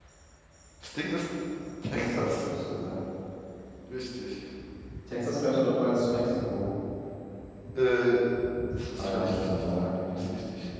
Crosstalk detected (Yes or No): Yes